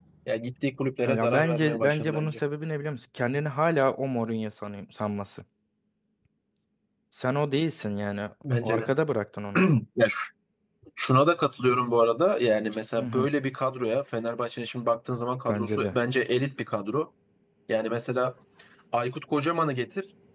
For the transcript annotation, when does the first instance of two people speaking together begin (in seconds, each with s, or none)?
1.1 s